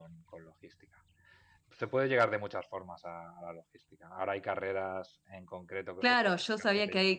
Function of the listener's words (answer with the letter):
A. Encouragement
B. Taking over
B